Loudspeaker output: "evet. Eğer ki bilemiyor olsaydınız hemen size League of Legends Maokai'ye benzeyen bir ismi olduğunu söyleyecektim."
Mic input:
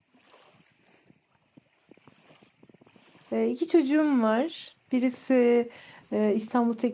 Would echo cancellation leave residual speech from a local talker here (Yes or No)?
Yes